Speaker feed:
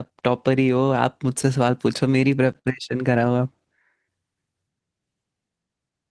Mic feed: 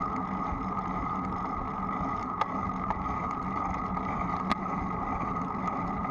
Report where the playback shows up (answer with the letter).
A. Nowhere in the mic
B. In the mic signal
A